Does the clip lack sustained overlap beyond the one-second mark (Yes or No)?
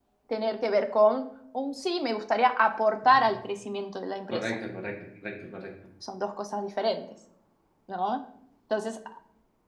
Yes